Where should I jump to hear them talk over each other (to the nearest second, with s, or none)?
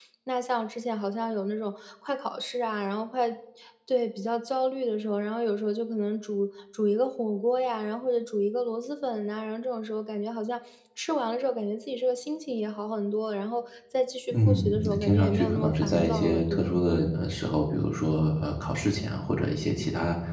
14 s